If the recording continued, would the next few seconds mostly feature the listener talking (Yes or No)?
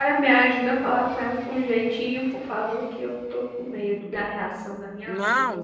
Yes